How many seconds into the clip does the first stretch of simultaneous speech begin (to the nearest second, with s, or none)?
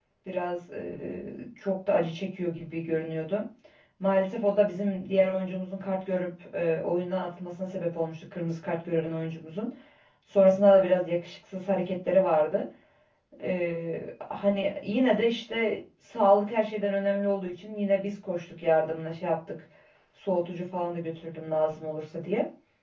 none